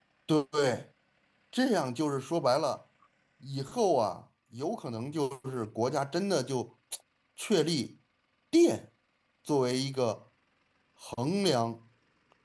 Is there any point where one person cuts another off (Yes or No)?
No